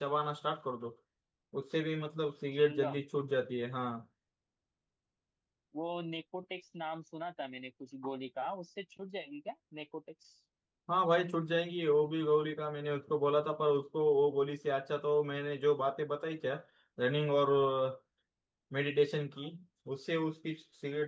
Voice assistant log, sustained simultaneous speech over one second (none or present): none